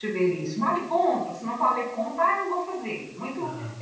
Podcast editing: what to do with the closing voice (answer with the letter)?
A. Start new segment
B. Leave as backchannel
B